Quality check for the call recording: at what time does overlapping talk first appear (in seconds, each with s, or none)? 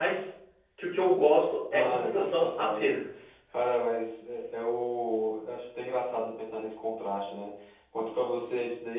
1.7 s